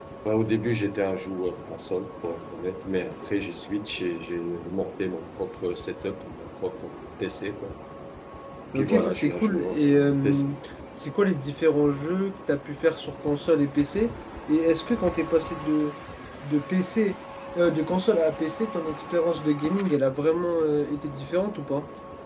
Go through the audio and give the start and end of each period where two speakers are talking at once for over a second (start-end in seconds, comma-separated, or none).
8.8-10.5